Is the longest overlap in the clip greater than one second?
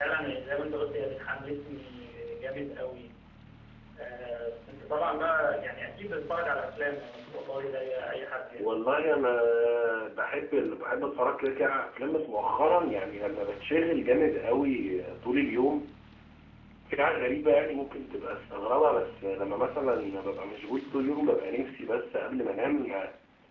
No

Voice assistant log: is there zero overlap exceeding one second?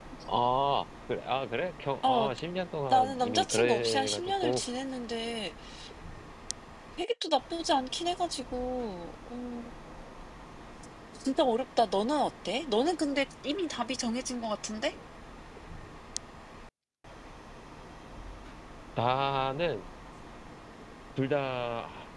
No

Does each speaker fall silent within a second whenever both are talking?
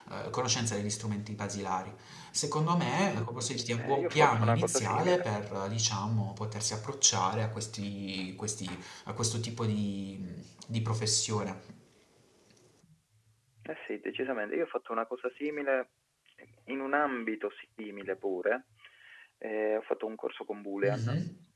No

